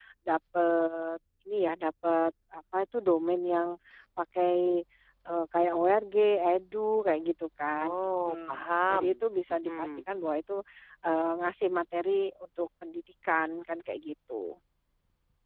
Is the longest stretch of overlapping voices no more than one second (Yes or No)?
No